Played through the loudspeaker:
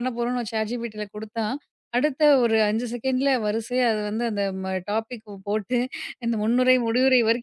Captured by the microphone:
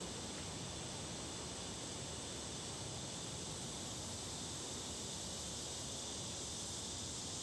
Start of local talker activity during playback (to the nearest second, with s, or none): none